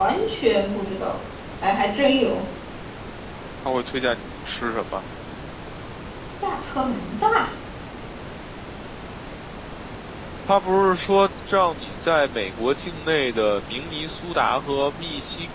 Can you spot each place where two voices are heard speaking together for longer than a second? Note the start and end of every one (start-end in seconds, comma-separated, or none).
none